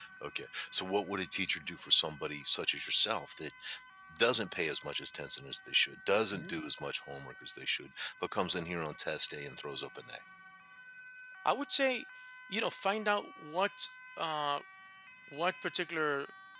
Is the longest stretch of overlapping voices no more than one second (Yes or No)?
Yes